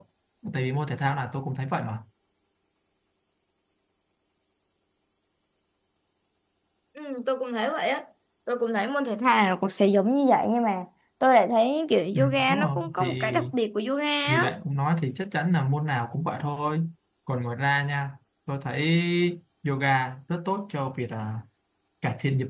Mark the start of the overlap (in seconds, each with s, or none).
12.1 s